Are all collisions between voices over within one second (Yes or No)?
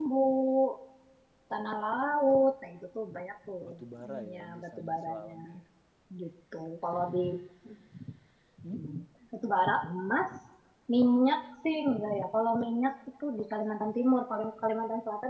No